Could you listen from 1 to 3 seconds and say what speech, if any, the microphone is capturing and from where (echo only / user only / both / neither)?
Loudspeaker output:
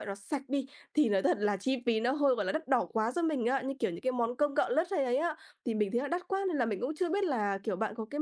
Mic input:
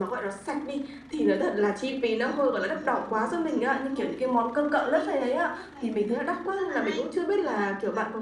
both